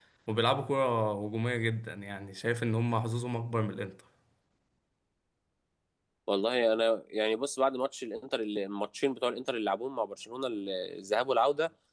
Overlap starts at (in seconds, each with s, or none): none